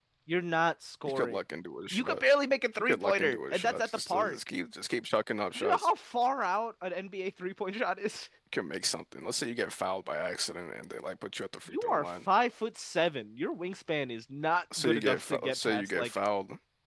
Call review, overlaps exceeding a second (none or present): present